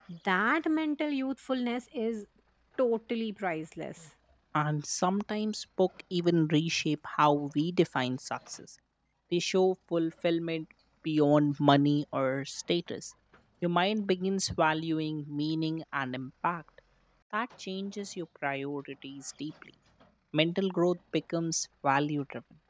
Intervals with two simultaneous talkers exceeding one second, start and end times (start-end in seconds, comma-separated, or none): none